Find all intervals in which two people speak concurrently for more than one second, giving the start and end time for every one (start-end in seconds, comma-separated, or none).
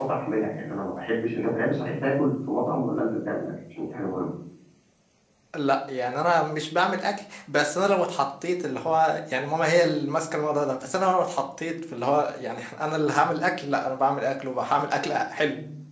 none